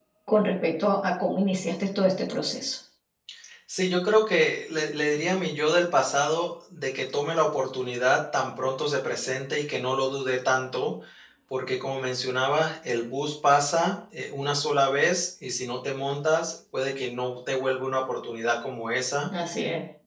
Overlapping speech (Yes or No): No